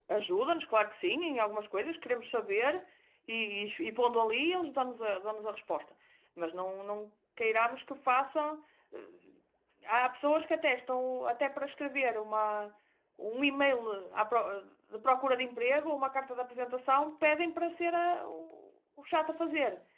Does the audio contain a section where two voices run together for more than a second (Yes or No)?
No